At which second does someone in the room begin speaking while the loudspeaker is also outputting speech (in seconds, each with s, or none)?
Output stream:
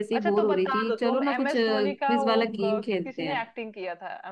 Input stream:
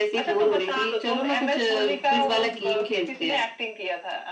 none